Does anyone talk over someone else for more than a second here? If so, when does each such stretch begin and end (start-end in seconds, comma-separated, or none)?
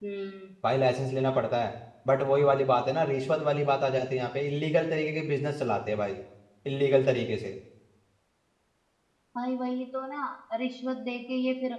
none